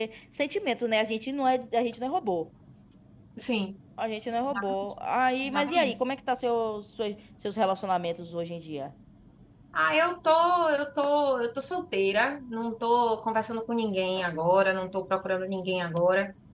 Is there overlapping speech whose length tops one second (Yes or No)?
No